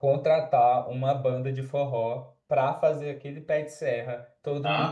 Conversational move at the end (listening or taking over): taking over